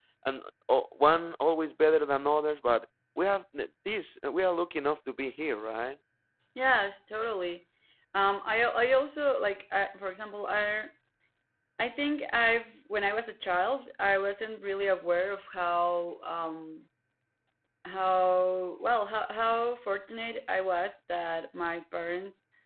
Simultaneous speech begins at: none

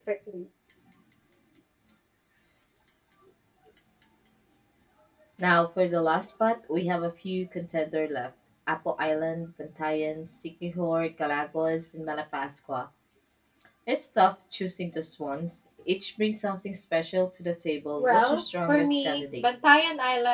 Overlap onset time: 18.0 s

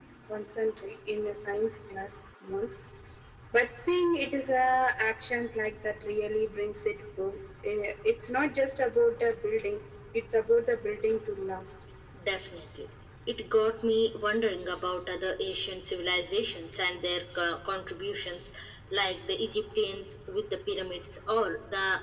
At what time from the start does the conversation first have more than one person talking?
none

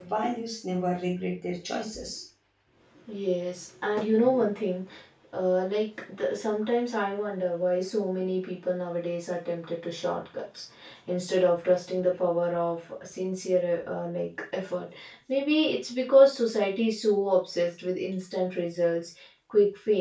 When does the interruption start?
none

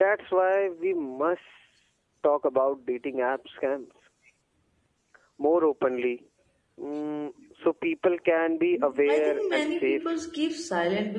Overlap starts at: 8.7 s

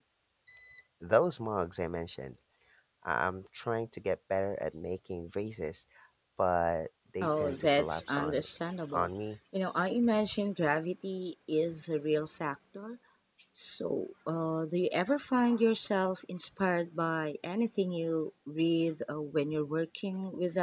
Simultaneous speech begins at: 7.2 s

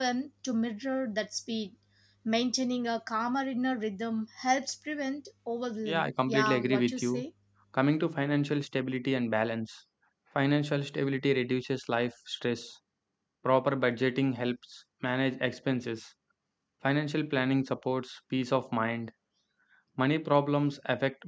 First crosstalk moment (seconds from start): 5.8 s

